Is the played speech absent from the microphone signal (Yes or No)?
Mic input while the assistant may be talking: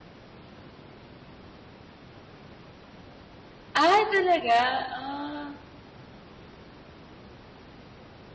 Yes